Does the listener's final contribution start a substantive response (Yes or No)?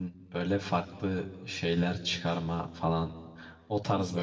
No